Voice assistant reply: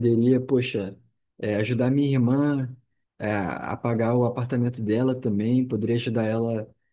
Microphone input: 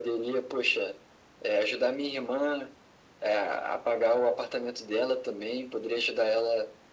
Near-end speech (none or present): none